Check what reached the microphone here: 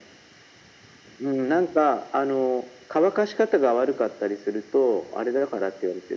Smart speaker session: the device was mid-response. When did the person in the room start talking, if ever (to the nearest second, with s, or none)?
none